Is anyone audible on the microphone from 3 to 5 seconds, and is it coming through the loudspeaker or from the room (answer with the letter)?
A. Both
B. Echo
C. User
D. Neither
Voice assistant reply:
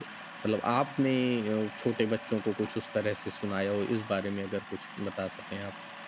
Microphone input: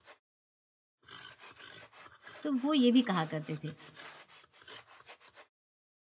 C